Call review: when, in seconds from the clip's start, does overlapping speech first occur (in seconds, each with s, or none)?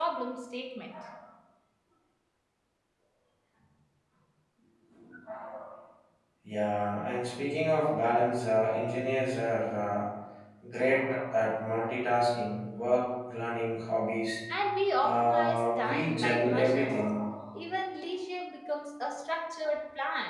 15.0 s